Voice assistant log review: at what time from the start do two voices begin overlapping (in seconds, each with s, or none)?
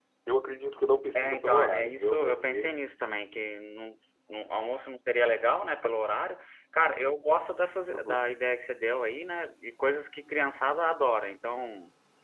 1.1 s